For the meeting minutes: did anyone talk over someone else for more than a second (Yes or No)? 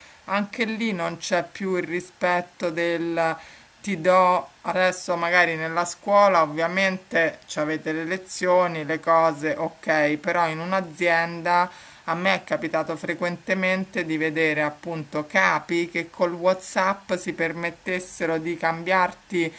No